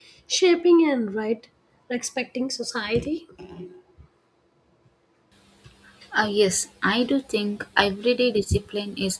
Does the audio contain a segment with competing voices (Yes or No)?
No